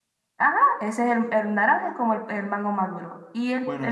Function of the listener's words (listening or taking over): taking over